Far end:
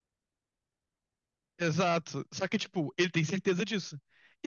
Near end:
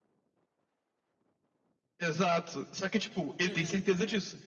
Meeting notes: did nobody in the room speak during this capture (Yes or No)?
No